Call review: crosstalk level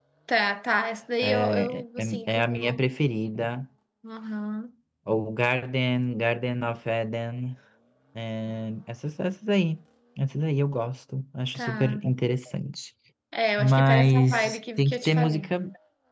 present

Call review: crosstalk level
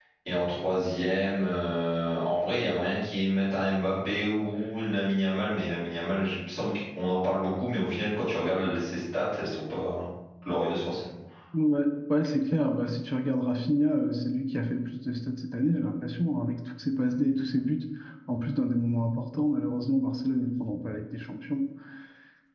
none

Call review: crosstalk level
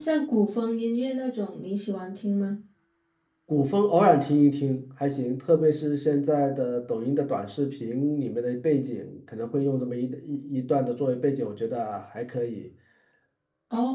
none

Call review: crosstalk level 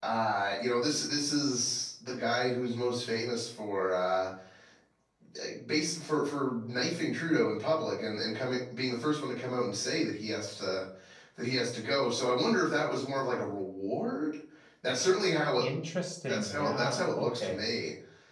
present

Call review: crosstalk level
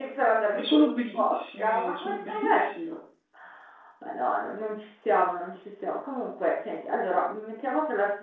present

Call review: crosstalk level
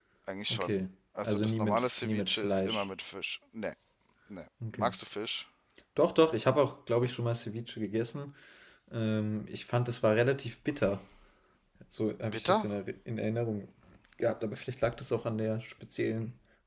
present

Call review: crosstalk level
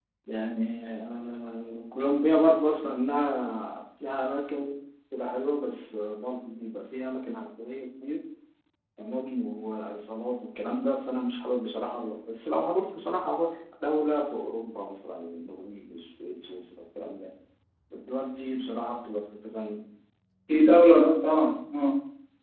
none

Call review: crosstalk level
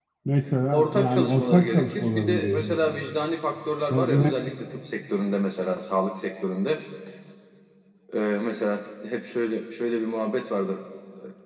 present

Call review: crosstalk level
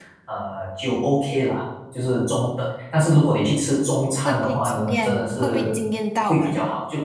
present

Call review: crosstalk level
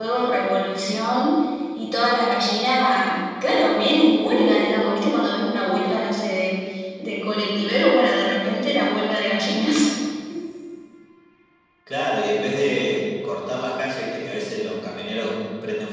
none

